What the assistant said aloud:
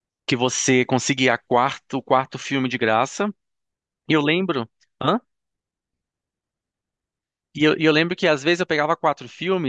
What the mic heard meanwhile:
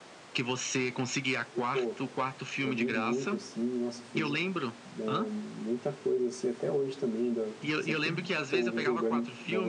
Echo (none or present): present